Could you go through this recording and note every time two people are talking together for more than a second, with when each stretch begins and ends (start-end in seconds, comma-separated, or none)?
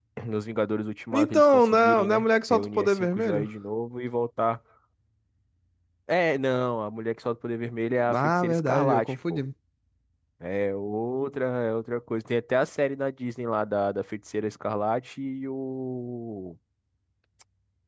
1.1-3.5, 8.1-9.4